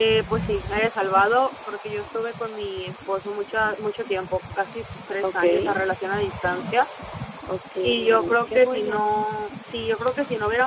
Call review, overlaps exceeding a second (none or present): present